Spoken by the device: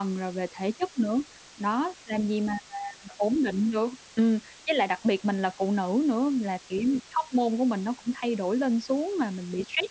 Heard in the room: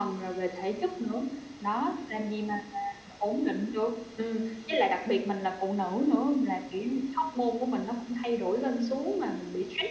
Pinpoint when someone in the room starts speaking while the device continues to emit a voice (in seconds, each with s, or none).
none